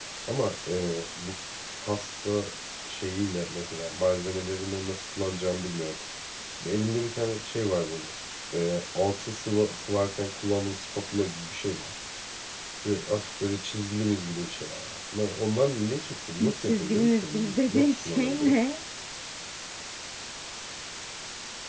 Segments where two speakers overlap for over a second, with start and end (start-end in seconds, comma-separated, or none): 16.6-18.6